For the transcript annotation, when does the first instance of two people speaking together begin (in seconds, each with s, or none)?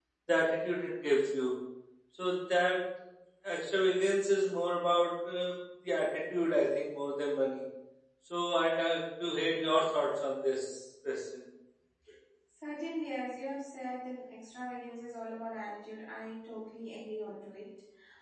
none